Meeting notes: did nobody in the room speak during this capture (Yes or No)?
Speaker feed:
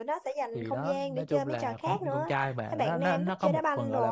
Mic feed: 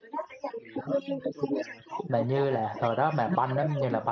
No